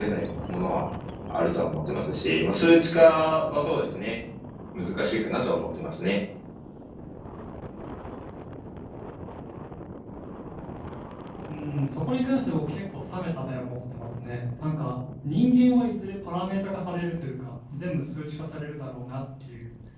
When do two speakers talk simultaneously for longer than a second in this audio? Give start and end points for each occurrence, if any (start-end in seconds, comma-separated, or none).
none